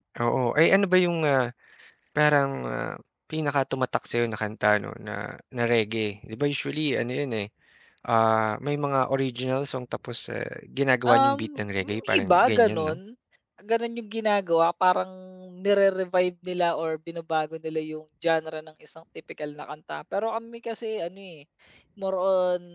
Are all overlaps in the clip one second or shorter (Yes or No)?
No